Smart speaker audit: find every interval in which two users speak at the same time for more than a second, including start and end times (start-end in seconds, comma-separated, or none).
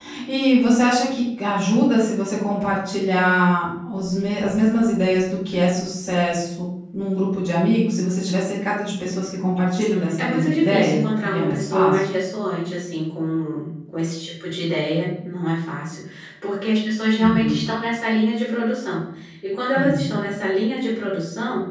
10.2-12.0